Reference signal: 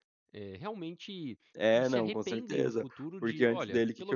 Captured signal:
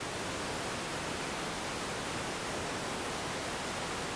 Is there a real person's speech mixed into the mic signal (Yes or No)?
No